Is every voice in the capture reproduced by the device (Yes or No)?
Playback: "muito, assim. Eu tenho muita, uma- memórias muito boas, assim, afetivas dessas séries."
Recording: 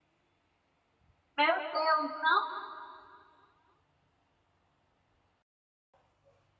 No